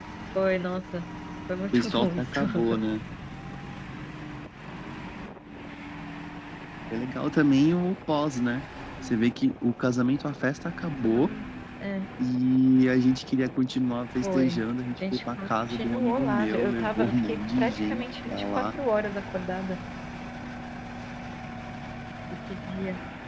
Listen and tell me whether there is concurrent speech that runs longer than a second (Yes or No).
Yes